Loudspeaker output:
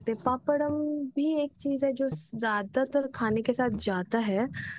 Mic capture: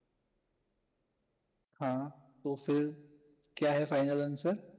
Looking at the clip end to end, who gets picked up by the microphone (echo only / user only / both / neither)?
user only